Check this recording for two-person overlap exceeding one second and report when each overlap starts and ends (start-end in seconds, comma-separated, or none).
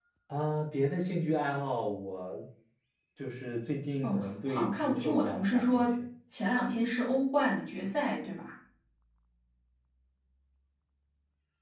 4.0-5.8